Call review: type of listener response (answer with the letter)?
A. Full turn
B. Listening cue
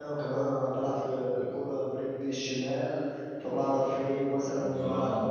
B